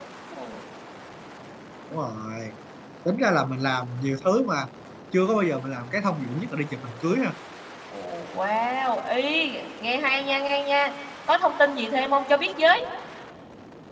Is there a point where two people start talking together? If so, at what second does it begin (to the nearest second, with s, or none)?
none